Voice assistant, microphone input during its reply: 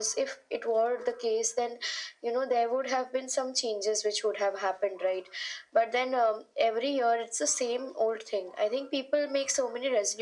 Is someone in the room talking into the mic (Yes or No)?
No